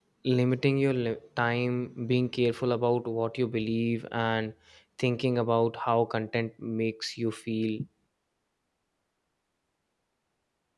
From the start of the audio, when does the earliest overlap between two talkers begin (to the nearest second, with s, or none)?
none